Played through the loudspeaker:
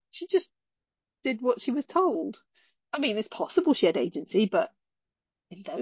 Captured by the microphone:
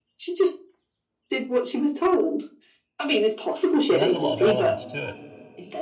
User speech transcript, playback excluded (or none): It has a lot of elements to